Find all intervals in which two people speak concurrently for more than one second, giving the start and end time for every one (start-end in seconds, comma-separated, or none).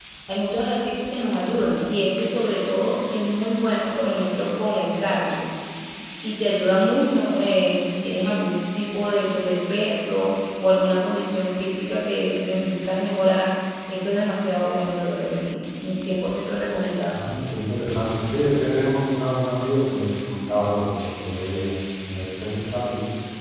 none